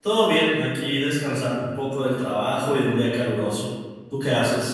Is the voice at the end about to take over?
Yes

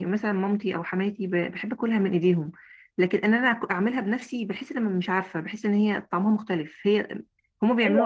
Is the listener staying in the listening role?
No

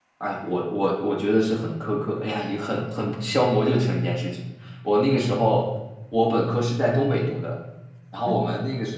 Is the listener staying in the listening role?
Yes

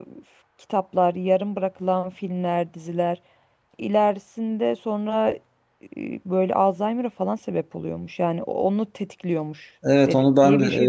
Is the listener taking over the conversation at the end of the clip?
Yes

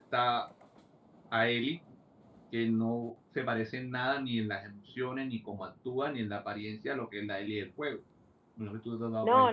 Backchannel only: No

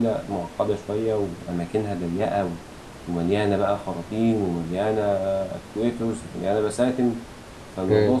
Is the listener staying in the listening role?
Yes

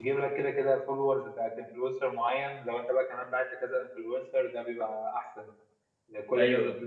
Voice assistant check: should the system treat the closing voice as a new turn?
No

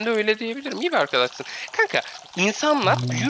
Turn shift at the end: No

